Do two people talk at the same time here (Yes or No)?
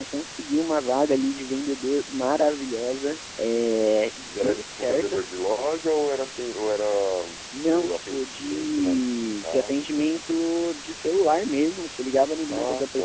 Yes